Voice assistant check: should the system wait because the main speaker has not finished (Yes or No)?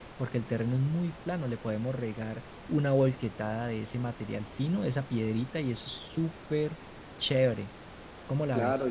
No